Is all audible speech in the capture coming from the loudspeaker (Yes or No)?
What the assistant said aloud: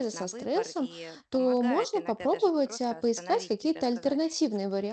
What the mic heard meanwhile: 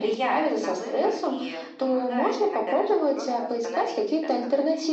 Yes